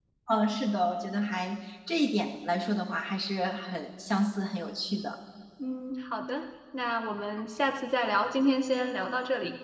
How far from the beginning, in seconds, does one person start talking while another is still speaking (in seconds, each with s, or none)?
none